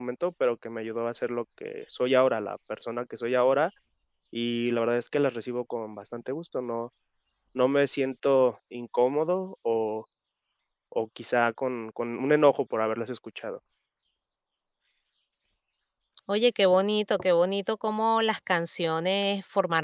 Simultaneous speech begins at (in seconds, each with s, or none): none